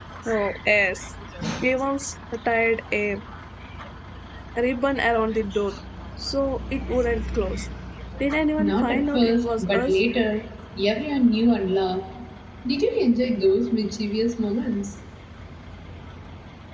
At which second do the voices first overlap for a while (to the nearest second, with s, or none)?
9 s